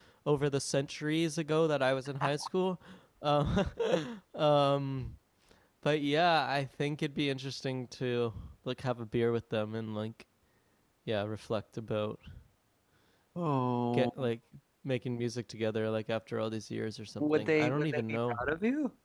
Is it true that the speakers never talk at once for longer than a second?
No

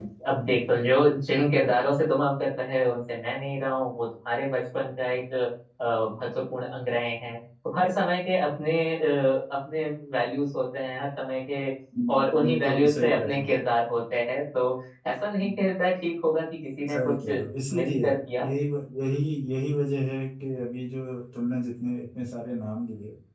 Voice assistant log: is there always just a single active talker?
No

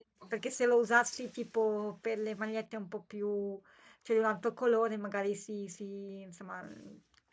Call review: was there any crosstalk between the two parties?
No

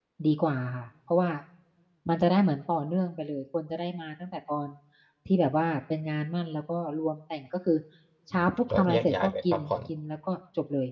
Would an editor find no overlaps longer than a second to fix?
No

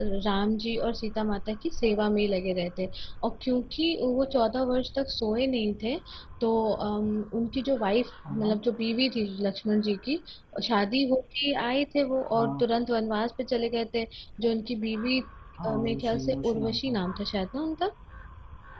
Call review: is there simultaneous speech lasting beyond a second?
Yes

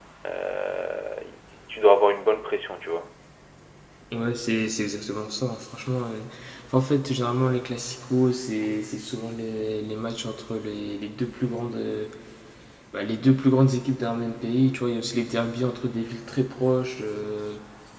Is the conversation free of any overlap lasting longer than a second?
Yes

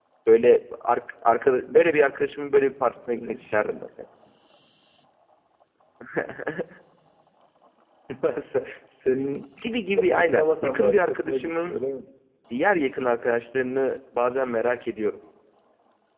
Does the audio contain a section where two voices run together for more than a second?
Yes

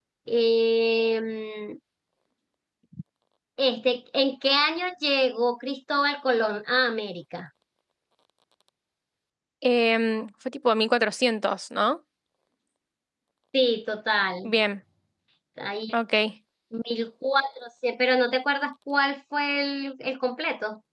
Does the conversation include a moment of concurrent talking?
No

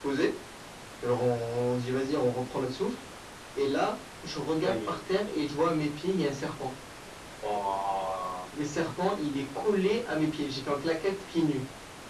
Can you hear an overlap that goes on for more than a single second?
No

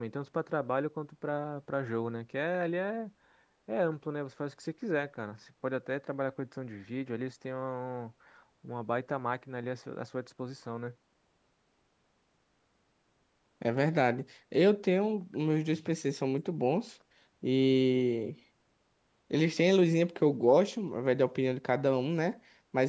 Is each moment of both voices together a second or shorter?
Yes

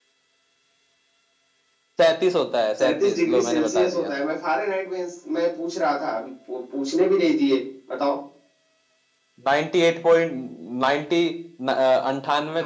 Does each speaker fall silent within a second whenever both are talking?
No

